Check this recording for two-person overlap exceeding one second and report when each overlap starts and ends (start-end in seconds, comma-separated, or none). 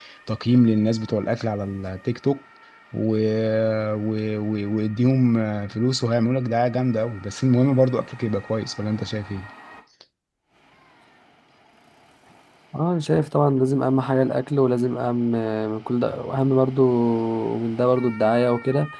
none